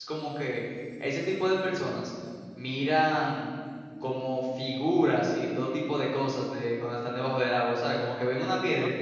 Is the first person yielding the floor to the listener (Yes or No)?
Yes